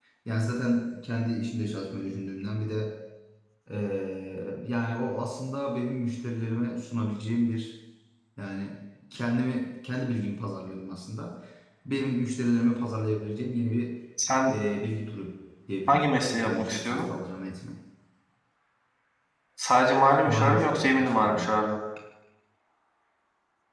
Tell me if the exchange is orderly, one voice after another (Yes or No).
No